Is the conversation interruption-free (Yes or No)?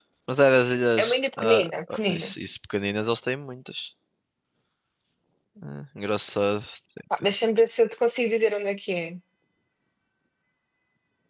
No